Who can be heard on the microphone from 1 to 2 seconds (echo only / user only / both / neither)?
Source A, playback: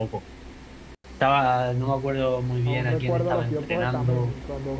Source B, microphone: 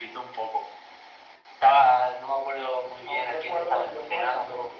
echo only